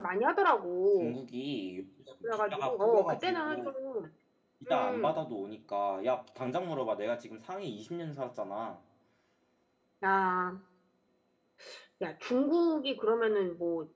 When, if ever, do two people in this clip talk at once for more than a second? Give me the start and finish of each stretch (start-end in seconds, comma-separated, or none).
2.2-3.7